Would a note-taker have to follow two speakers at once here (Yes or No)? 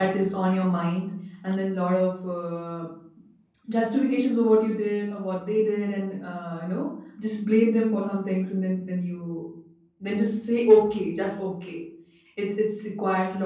No